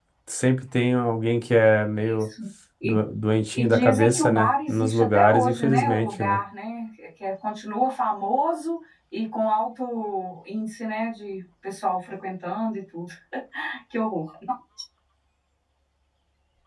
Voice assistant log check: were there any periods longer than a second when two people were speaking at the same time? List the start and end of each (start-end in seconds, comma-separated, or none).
3.5-6.4